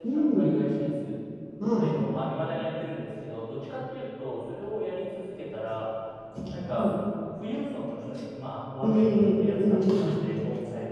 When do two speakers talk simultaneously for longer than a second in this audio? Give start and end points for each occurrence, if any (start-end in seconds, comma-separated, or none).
8.8-10.2